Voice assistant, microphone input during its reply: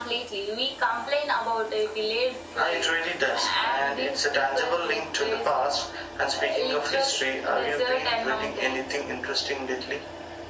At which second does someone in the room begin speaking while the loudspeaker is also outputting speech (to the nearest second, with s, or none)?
none